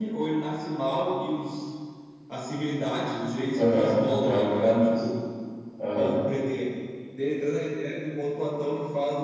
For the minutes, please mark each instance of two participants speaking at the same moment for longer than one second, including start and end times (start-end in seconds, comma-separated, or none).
3.6-5.0